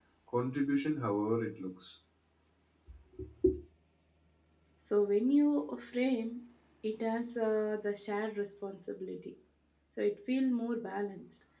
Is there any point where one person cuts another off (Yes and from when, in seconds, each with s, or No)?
No